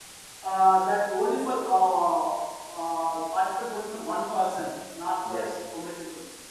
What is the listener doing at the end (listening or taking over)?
listening